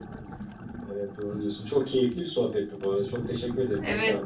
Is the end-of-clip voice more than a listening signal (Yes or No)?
Yes